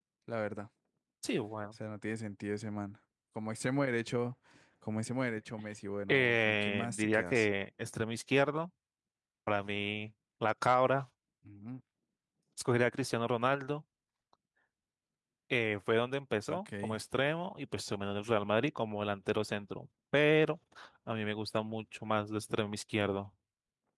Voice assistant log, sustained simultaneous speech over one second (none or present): present